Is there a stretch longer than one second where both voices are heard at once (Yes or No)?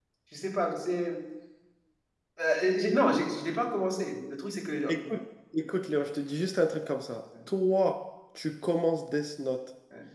No